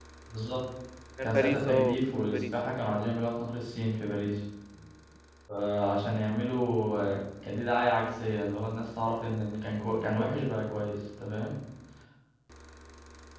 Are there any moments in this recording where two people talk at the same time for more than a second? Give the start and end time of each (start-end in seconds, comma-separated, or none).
1.2-2.5